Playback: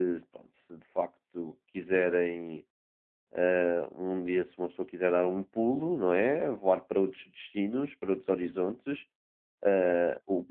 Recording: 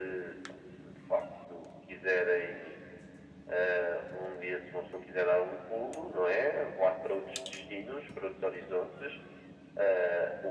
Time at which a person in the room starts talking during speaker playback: none

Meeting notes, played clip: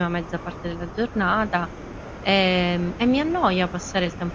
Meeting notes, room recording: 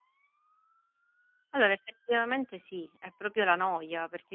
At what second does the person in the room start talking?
1.5 s

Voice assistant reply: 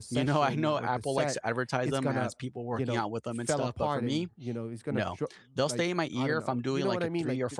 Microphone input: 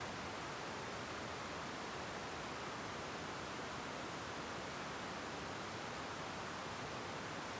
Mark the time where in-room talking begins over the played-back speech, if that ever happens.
none

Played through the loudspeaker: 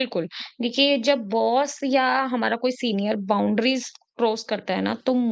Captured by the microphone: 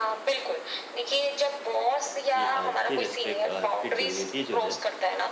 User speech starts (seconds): 2.3 s

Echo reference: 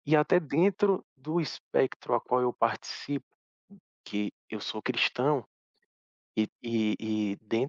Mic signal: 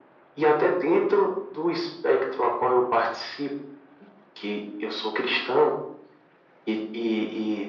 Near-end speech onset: none

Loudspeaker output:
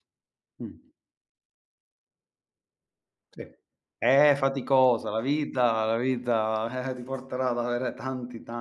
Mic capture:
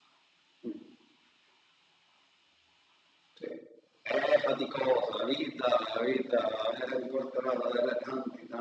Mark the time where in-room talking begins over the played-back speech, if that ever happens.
none

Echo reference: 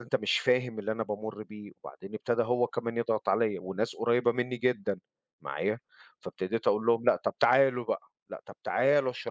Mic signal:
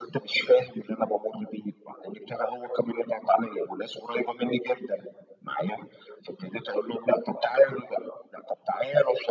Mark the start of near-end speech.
none

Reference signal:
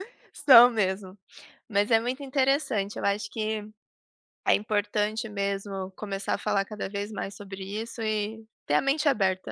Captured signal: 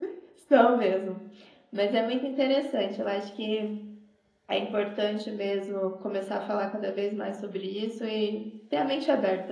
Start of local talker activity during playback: none

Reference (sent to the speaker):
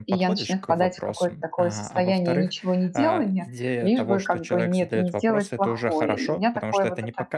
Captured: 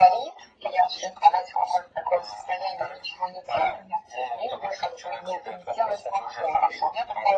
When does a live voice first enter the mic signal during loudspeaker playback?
none

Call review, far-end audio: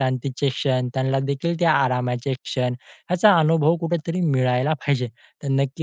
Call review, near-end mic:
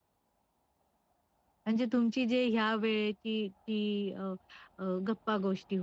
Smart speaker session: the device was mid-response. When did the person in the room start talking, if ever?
1.6 s

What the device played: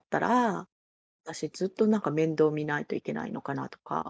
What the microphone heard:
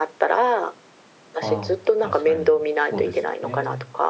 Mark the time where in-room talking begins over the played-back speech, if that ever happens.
1.4 s

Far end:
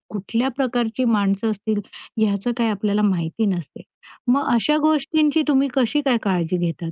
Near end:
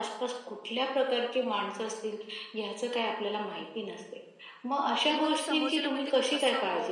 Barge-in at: 5.0 s

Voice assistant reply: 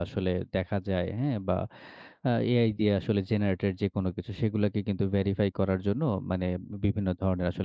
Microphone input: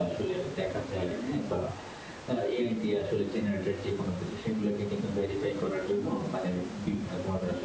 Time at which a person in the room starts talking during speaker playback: none

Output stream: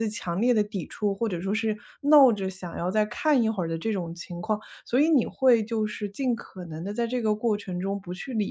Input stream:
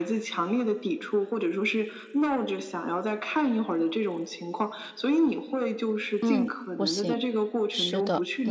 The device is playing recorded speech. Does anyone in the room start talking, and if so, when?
6.2 s

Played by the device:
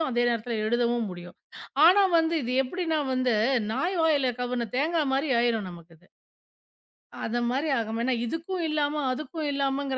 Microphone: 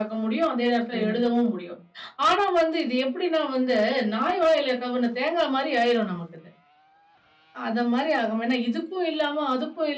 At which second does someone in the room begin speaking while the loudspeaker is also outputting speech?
0.9 s

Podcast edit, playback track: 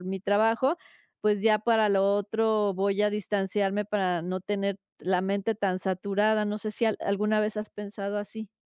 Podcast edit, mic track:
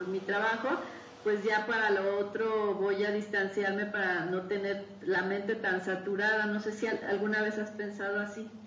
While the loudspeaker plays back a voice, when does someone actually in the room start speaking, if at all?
none

